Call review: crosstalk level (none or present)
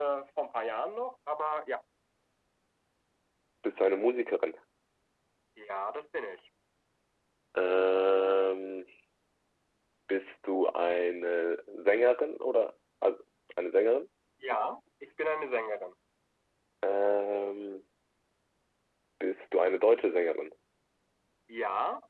none